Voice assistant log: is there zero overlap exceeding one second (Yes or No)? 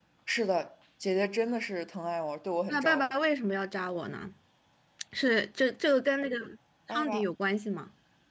Yes